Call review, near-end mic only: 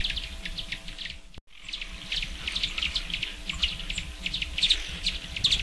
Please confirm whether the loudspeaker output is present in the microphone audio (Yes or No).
No